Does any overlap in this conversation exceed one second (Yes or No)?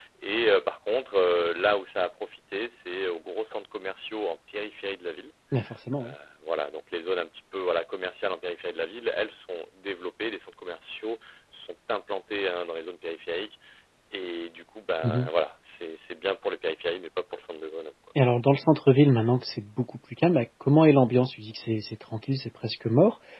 No